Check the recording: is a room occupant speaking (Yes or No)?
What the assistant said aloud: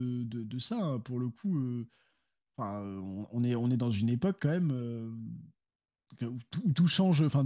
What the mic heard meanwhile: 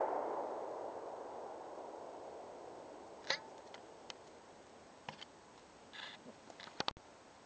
No